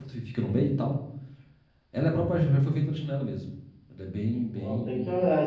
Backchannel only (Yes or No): No